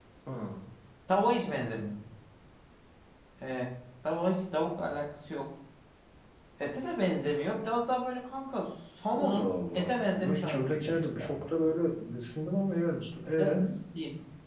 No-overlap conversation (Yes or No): No